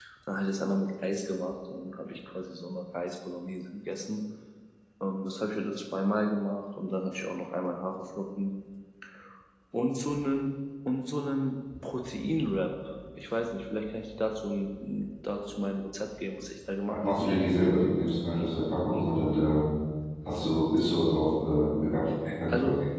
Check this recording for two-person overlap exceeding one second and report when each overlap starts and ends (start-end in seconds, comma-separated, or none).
none